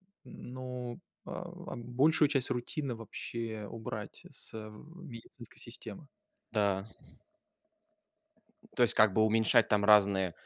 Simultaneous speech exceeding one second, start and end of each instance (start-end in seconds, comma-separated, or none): none